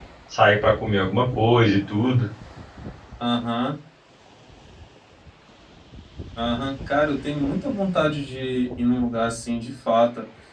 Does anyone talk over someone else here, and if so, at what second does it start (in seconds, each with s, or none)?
none